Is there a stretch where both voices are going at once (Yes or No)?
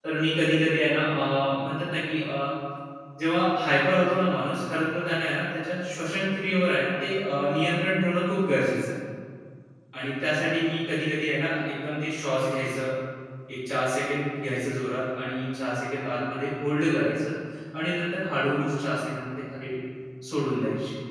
No